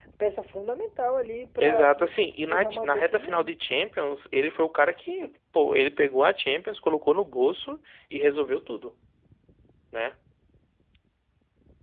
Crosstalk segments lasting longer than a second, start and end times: 1.6-3.5

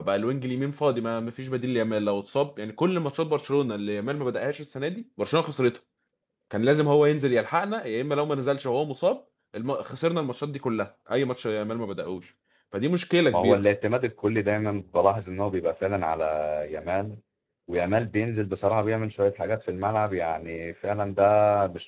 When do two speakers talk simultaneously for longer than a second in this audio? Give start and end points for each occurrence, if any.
none

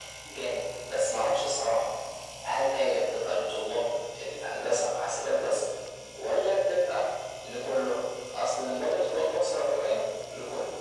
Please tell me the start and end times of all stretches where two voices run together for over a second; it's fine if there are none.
none

